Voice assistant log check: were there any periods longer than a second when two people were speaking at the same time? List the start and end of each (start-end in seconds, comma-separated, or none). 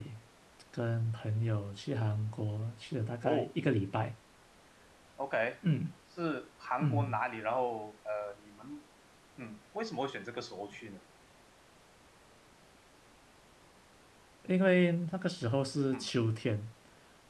none